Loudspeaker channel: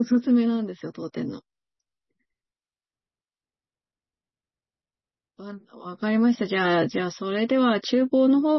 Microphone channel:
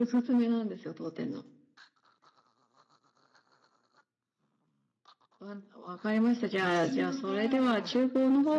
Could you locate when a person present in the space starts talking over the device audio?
7 s

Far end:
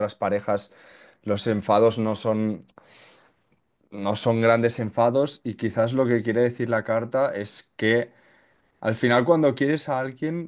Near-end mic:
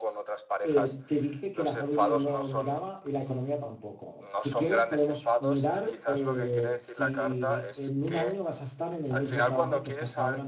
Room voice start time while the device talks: 1 s

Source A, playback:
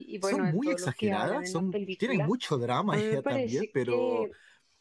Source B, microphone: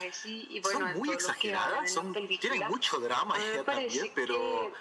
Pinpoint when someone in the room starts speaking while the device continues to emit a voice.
none

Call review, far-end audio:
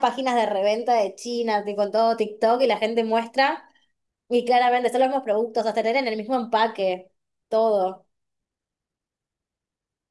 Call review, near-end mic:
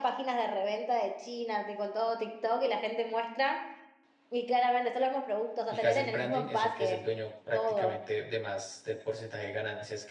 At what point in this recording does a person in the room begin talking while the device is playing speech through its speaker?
6 s

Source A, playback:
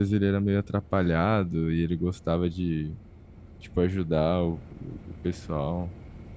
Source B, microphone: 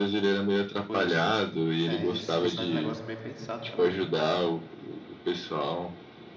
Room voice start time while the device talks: 1 s

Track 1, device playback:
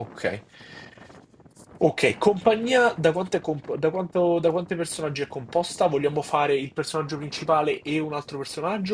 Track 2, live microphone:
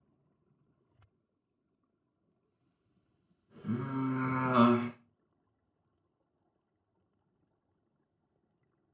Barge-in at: 4 s

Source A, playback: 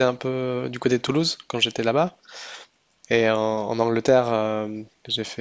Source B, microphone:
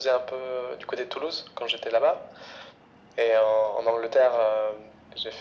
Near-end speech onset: none

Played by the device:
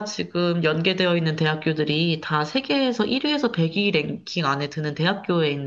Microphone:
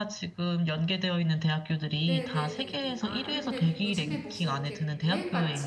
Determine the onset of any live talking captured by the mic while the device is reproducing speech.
2 s

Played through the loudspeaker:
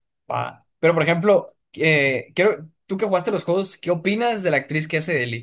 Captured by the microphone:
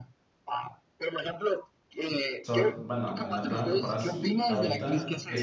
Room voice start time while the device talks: 2 s

